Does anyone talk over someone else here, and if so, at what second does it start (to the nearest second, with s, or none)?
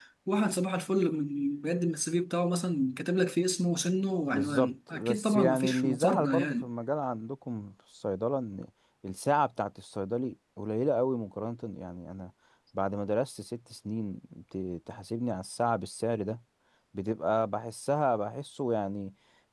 4 s